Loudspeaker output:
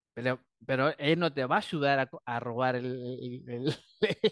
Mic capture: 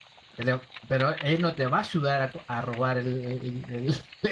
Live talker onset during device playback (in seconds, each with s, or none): none